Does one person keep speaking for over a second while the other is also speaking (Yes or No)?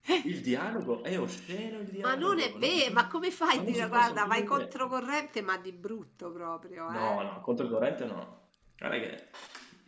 Yes